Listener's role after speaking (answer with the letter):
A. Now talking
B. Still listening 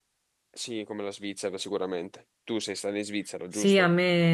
A